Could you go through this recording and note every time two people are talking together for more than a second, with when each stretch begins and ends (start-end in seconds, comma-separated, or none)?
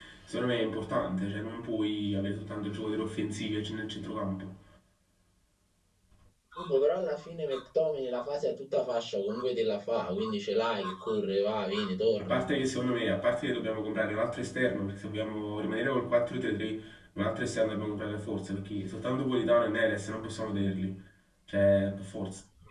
none